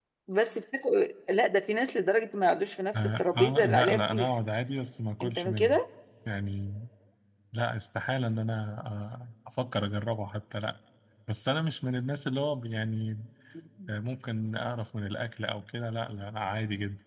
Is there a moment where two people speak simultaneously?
Yes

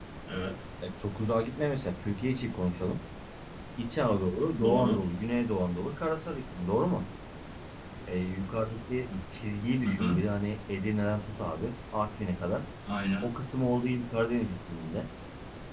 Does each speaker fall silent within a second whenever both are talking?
Yes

